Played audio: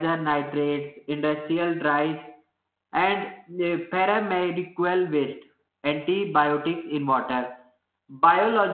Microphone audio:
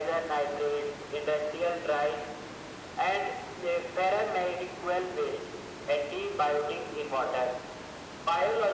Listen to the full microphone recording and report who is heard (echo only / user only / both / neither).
echo only